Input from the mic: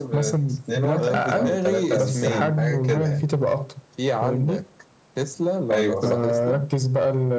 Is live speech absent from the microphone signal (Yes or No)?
No